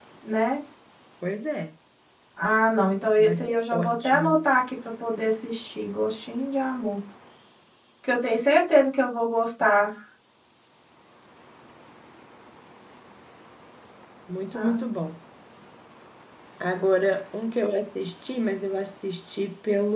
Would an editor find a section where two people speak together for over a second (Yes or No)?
Yes